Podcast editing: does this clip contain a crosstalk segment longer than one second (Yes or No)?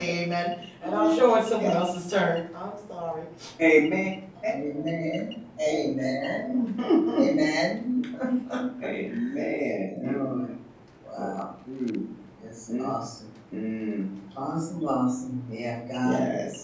No